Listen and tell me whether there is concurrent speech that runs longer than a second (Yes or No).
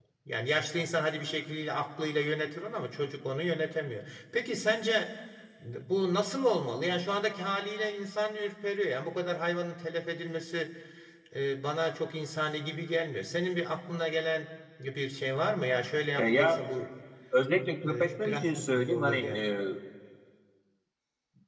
Yes